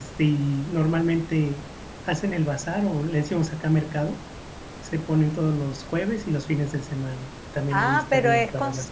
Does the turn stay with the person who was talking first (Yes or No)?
No